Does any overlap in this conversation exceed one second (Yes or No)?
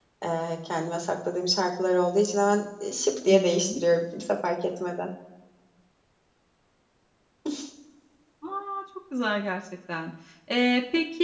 No